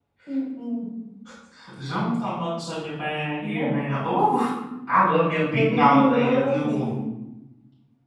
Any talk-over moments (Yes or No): Yes